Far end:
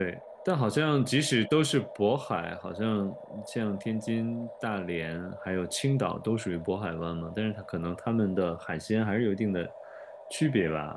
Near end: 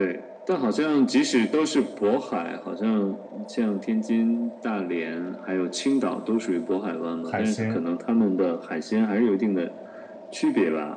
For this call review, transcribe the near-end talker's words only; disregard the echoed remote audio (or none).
海鲜？